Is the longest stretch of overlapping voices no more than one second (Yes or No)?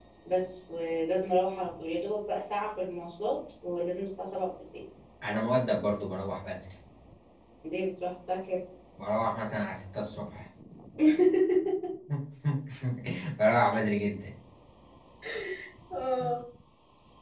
Yes